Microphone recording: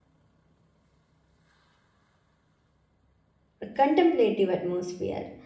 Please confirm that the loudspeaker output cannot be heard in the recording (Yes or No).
Yes